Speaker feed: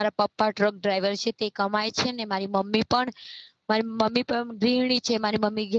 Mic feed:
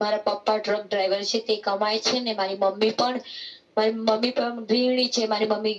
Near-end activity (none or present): none